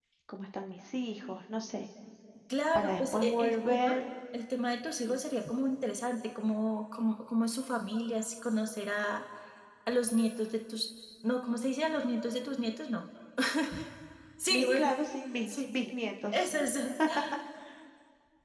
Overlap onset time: 2.8 s

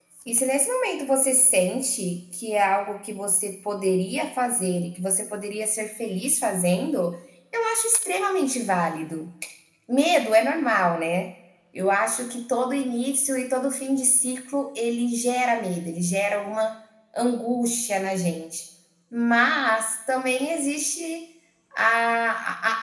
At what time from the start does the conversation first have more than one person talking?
none

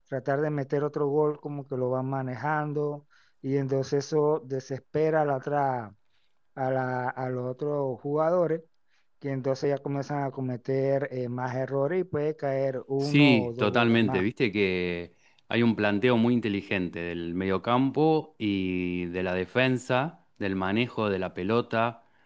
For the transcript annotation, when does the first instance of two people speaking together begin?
13.0 s

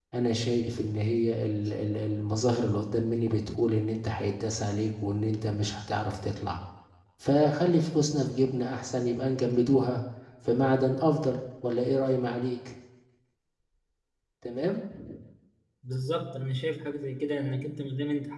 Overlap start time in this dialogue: none

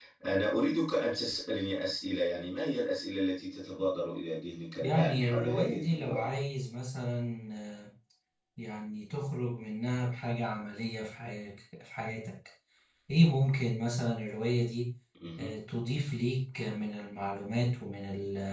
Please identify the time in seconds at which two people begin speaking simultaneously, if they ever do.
4.8 s

